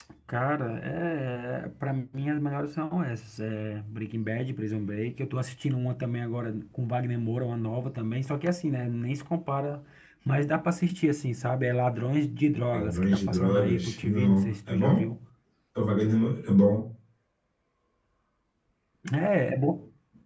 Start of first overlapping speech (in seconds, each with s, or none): 12.7 s